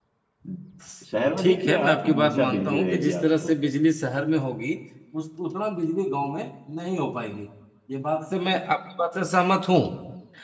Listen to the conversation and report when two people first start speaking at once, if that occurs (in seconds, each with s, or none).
1.4 s